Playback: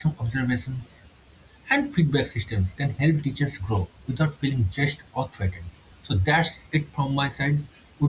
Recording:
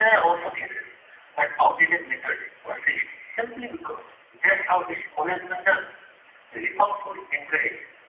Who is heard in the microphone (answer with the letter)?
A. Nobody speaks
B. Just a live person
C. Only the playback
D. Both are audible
B